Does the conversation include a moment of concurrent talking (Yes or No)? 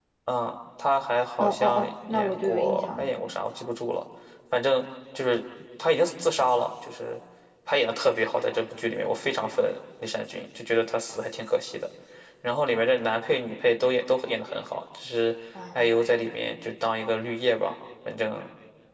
Yes